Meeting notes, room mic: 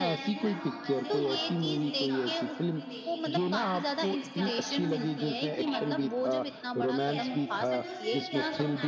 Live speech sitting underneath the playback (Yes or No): Yes